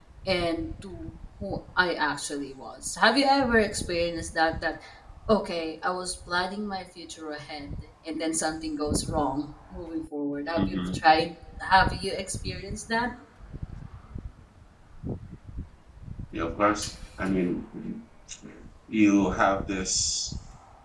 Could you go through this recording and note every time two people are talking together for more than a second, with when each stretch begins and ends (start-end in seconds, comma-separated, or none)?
none